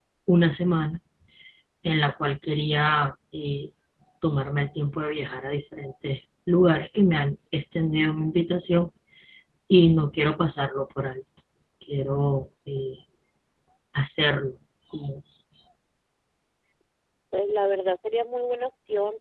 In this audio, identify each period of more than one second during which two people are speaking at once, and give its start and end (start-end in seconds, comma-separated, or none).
none